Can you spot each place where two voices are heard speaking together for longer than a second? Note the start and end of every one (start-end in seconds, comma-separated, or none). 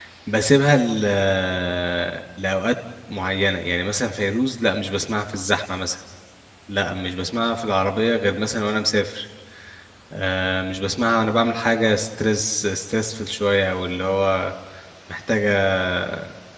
none